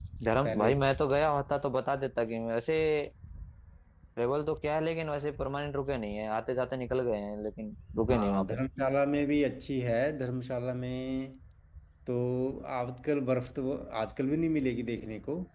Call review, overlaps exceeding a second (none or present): none